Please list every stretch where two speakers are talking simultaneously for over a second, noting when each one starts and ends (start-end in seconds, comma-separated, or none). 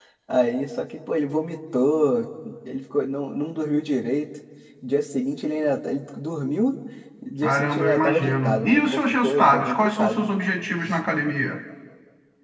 7.4-10.3